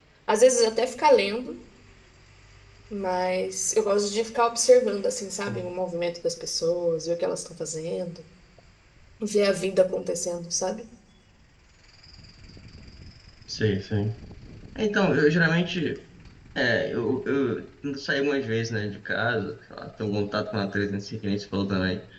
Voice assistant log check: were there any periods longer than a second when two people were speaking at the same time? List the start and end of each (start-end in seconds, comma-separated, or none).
none